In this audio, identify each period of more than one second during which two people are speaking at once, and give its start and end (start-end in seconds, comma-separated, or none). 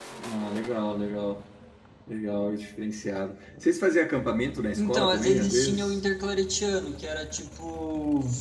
4.8-6.0